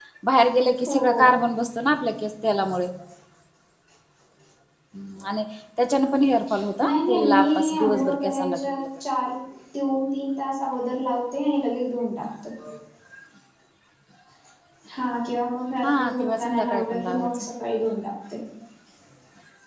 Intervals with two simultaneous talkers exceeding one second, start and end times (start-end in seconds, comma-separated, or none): 6.8-8.8, 15.8-17.4